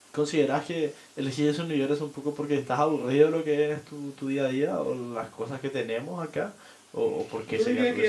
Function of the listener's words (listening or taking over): taking over